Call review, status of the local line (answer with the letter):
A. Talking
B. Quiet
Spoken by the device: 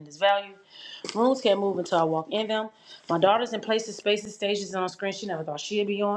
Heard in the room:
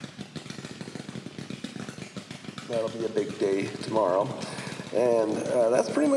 A